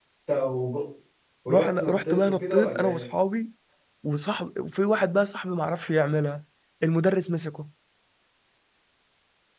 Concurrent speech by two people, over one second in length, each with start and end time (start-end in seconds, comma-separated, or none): 1.5-3.0